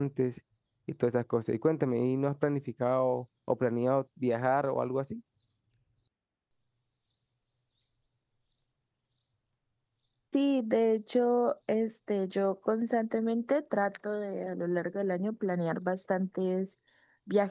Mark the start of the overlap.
none

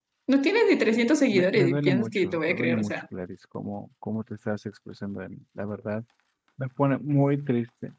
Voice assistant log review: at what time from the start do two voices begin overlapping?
1.3 s

